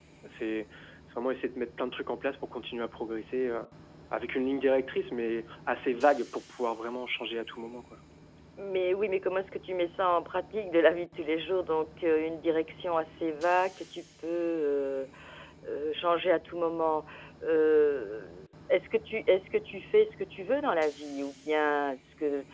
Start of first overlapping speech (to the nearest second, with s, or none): none